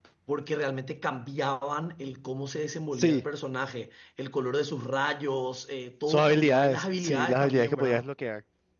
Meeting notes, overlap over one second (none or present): present